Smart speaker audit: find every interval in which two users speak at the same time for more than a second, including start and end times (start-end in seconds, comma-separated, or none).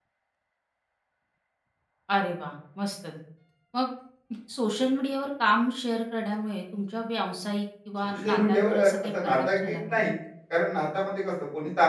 8.2-9.8